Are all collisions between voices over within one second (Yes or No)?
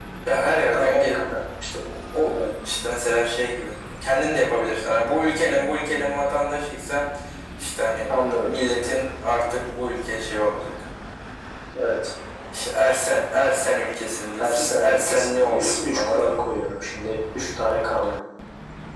No